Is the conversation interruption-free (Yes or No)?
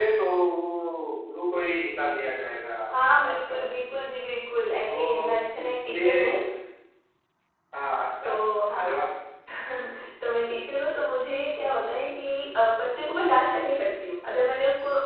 No